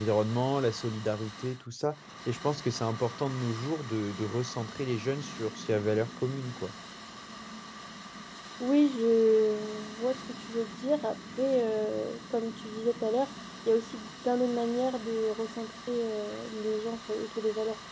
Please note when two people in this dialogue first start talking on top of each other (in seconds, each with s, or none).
none